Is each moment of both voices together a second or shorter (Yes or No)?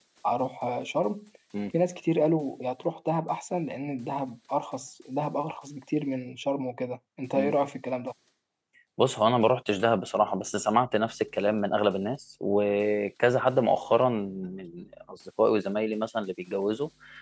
Yes